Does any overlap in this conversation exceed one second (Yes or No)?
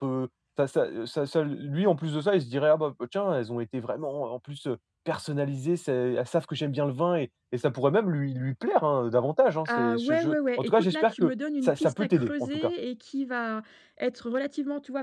Yes